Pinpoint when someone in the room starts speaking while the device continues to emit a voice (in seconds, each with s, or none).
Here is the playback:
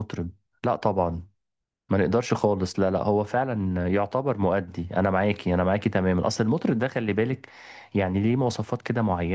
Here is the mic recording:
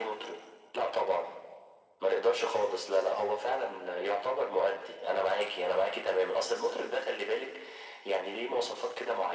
none